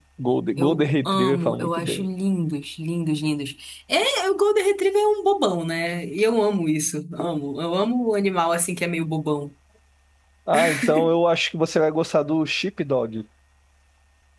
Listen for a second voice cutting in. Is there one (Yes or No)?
Yes